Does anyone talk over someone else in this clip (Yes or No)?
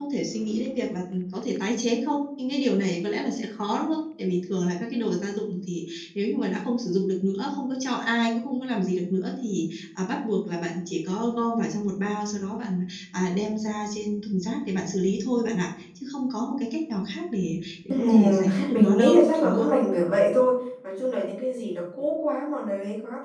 Yes